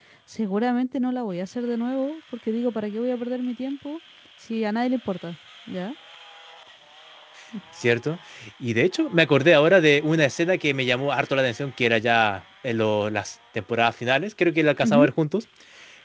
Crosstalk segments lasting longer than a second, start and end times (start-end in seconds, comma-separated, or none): none